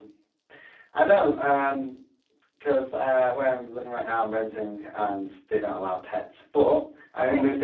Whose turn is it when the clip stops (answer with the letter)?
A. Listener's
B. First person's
B